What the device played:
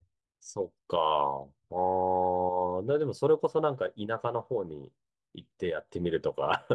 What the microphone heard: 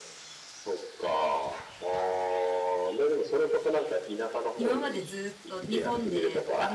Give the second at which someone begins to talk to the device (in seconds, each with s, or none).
4.5 s